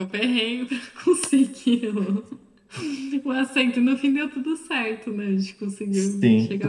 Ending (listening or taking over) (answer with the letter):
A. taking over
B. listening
A